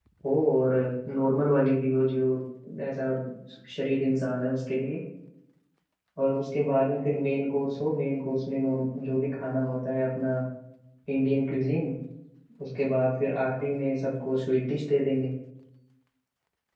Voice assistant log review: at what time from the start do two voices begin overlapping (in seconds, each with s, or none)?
none